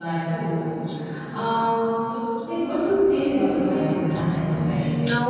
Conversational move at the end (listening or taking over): taking over